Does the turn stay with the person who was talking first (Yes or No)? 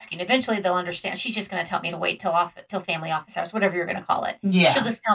Yes